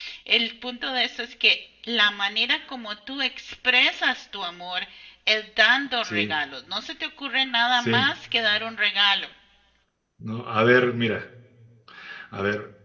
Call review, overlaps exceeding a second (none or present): none